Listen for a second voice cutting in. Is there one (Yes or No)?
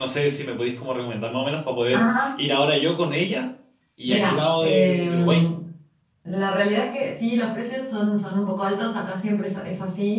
Yes